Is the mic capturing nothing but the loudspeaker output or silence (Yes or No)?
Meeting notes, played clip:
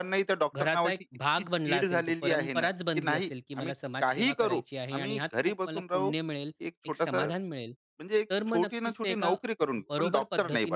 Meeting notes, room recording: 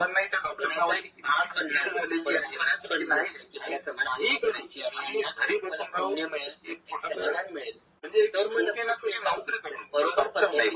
Yes